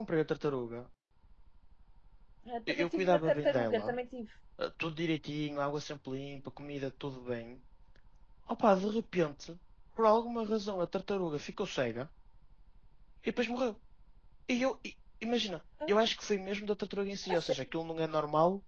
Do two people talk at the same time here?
Yes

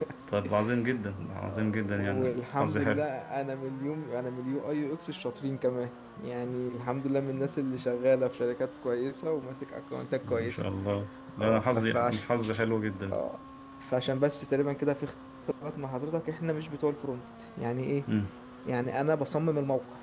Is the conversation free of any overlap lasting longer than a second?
No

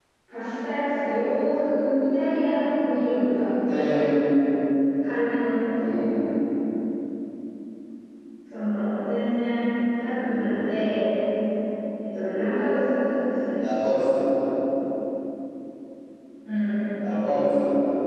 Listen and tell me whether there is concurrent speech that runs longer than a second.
No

